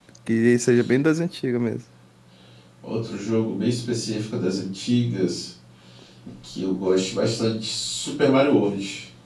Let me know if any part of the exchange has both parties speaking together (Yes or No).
No